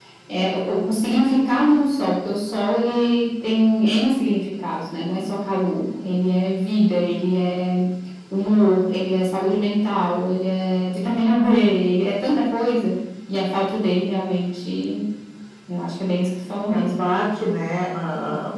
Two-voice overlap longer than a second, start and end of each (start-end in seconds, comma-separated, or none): none